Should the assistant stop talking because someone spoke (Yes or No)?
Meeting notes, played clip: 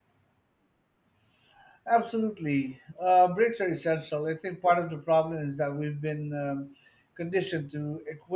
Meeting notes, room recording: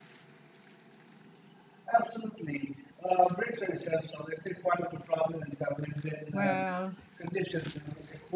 Yes